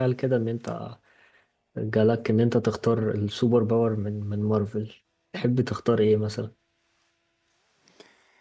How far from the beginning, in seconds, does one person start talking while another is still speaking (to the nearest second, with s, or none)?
none